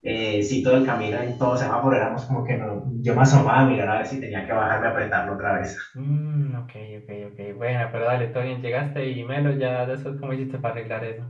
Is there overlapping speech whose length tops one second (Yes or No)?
No